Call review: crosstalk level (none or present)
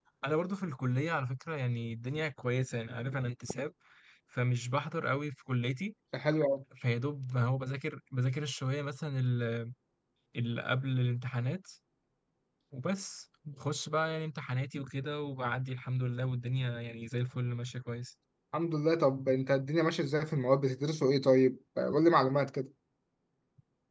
none